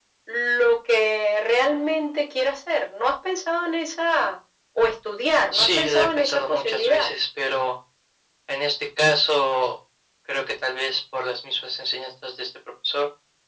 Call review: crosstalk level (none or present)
present